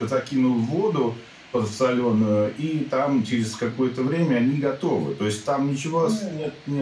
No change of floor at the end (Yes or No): Yes